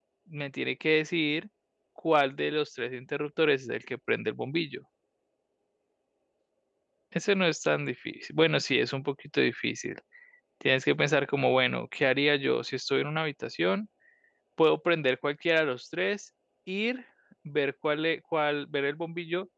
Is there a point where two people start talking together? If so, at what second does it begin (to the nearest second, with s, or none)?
none